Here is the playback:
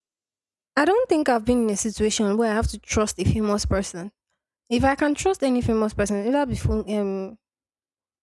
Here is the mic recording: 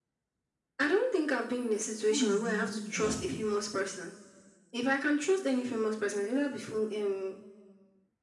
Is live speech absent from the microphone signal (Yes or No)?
No